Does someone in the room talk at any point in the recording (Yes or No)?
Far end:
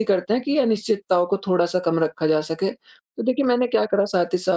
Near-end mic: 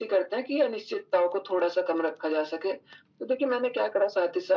No